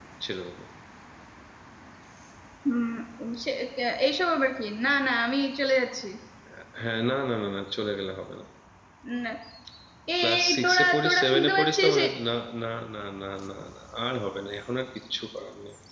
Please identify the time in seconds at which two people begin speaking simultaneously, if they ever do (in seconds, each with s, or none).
10.2 s